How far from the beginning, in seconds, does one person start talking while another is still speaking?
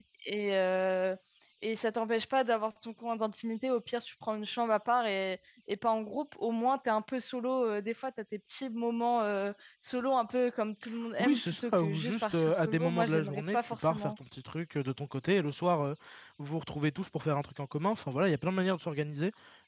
11.2 s

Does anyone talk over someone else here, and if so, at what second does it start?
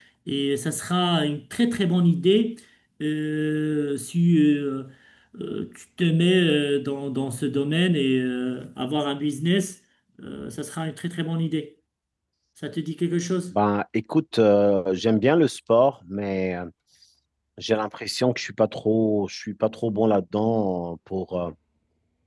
none

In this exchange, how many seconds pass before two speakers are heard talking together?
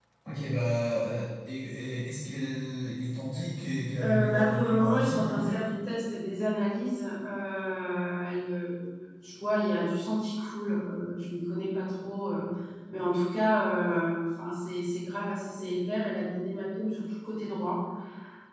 4.0 s

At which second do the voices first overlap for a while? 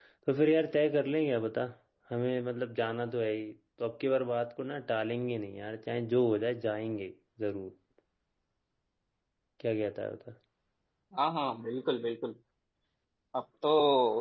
none

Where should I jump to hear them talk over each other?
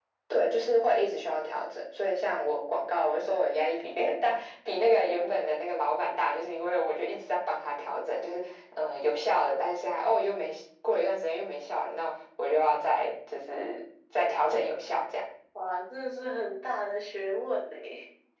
none

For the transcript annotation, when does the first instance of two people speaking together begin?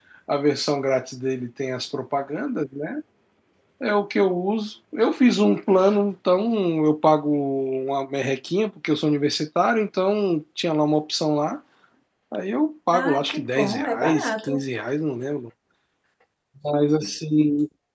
12.9 s

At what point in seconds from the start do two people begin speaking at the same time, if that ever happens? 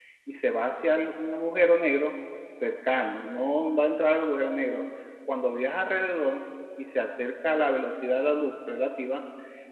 none

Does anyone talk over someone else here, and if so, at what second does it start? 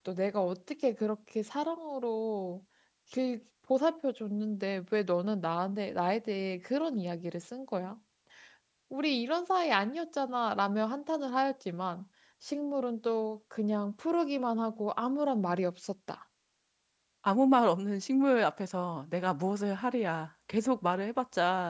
none

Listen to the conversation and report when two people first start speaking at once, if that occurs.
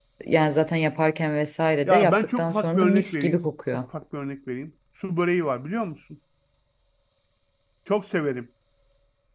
1.9 s

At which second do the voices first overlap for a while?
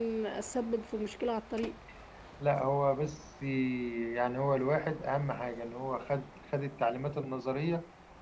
none

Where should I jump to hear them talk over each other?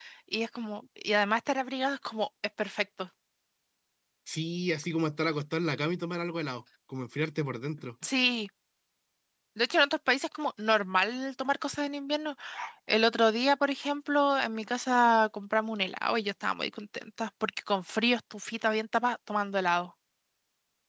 none

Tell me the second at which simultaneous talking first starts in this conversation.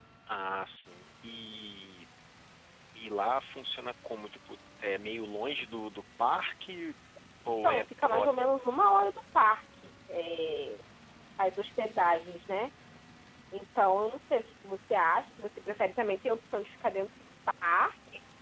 7.6 s

